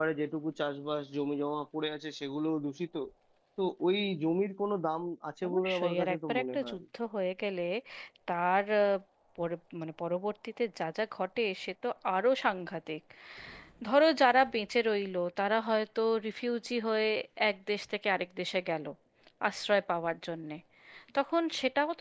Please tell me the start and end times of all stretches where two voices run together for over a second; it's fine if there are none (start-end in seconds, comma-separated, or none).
5.5-6.8